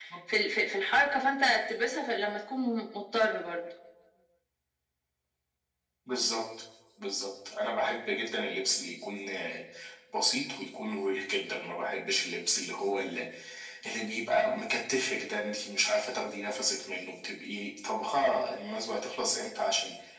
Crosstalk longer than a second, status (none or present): none